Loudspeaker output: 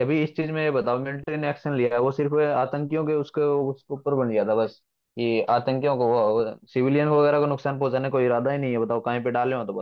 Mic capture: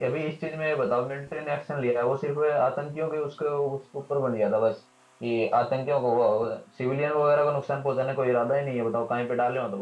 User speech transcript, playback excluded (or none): none